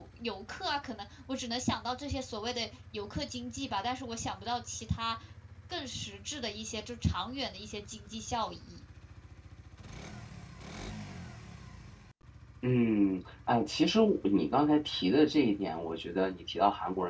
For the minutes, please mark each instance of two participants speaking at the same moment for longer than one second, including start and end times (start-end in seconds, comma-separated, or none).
none